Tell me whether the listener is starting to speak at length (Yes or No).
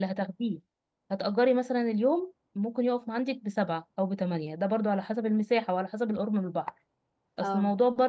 No